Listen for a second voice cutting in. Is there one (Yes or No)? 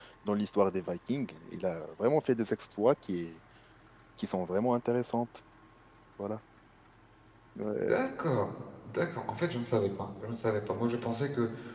No